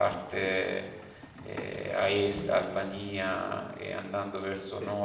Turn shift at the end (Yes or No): No